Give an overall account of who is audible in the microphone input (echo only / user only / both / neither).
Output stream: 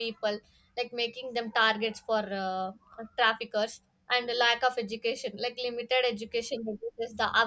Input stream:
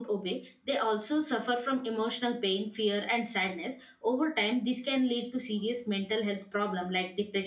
user only